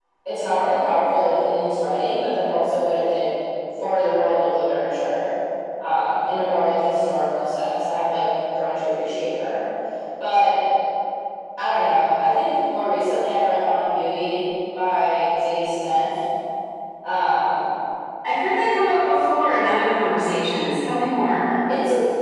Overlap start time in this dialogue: none

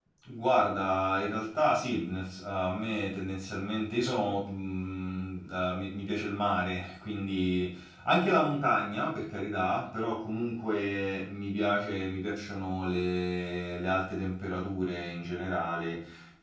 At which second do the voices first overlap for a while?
none

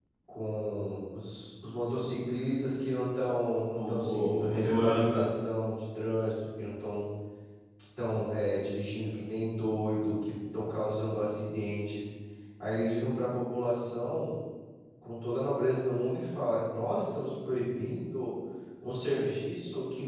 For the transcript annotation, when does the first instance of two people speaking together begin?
3.8 s

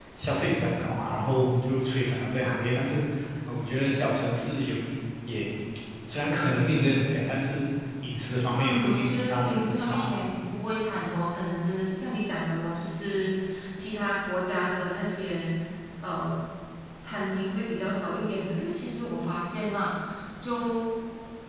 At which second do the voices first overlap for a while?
8.5 s

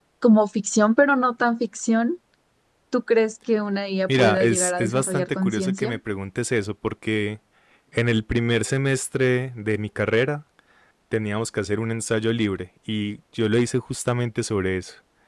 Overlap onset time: 4.1 s

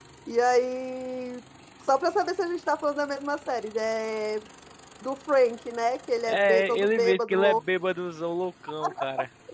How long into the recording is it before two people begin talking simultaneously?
6.2 s

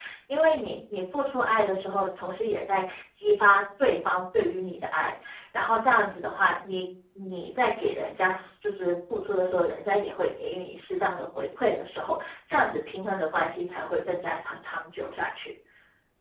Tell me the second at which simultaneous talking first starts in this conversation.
none

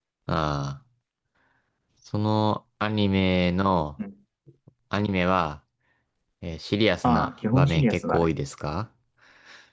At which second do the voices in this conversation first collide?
7.0 s

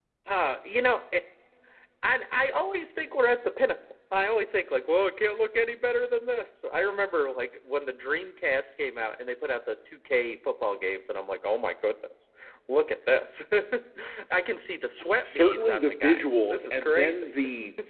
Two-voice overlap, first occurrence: 15.2 s

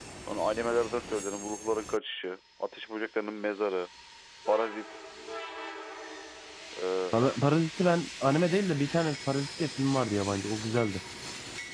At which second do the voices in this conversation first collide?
none

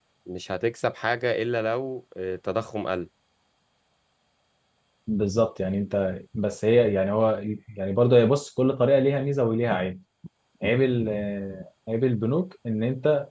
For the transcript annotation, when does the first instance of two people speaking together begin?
none

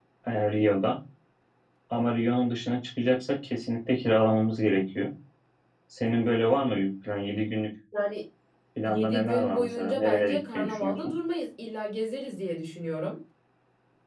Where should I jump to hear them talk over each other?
8.9 s

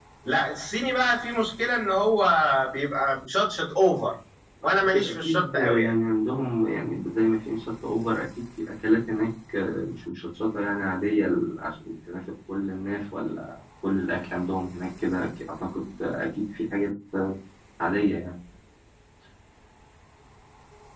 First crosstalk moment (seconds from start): 4.6 s

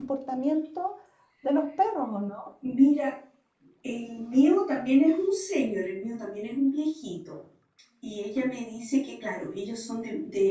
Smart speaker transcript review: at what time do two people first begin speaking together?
none

